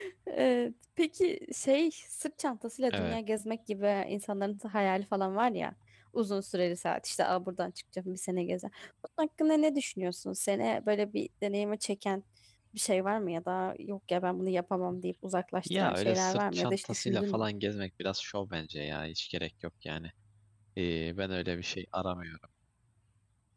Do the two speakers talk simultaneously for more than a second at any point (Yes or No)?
Yes